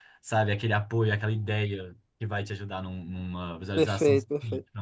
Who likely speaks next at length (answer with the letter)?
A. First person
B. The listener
B